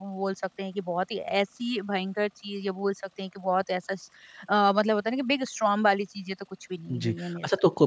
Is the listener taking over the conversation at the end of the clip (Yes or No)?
Yes